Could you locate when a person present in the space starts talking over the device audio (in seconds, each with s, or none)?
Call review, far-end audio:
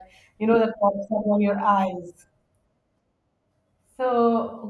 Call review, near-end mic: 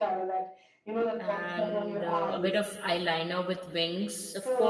1.2 s